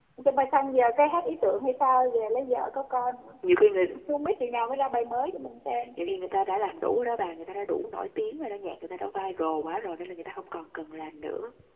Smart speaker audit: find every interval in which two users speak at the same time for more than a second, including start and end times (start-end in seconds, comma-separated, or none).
none